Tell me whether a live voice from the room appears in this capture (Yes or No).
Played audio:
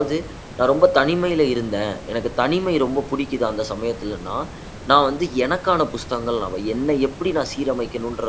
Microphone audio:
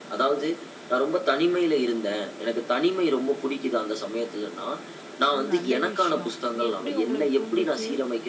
Yes